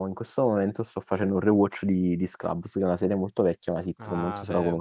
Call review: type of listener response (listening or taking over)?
taking over